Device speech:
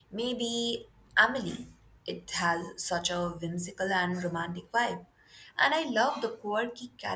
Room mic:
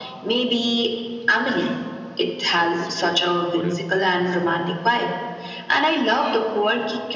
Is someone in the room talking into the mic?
Yes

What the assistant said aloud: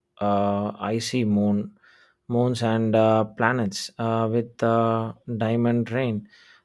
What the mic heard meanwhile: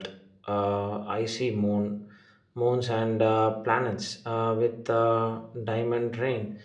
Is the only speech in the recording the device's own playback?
Yes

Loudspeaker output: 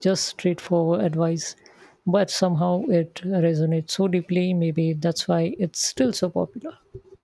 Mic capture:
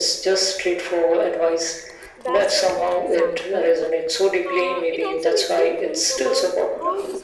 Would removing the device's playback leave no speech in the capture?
No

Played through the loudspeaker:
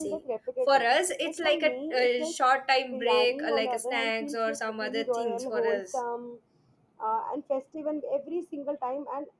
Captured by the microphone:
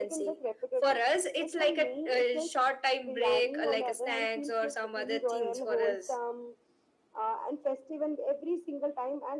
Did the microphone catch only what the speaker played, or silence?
Yes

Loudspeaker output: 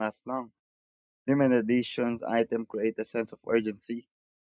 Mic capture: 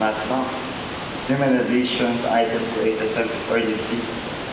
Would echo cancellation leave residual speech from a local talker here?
No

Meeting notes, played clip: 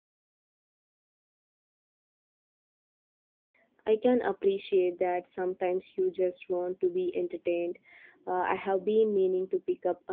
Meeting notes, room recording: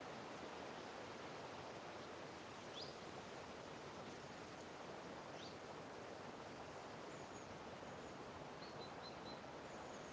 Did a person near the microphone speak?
No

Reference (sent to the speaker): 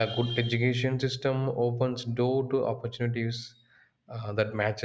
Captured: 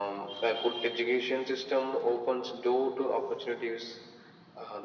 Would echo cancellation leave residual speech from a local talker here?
No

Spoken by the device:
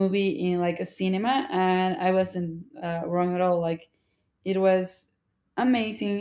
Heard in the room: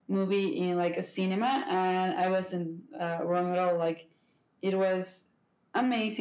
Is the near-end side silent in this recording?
Yes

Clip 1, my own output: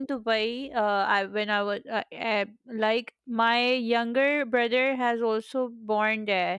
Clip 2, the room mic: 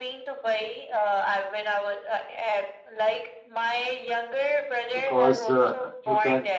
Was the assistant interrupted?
Yes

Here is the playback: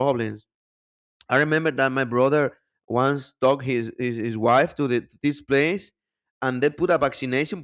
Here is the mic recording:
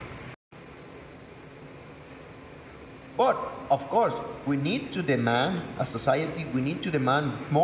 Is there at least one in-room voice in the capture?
Yes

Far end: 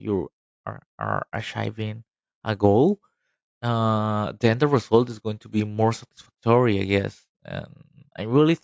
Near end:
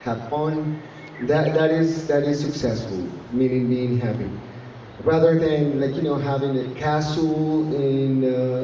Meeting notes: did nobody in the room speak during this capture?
No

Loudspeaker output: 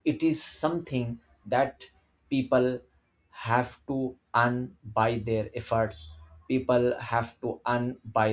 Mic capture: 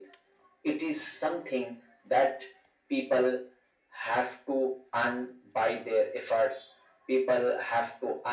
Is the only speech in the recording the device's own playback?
Yes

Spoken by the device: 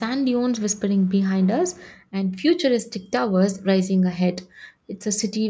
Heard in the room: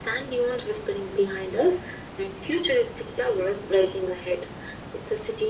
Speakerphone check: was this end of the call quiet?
Yes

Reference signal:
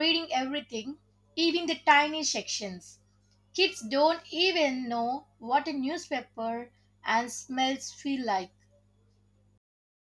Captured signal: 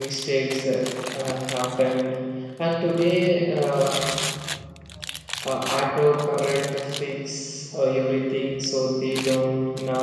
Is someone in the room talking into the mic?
Yes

